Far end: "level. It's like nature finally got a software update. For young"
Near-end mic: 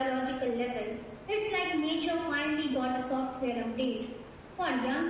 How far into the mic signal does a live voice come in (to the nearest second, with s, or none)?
none